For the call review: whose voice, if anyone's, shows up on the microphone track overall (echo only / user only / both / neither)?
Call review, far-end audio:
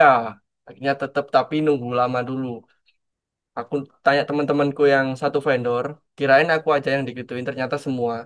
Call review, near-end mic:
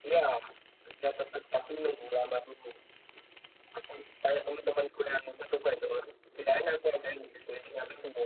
echo only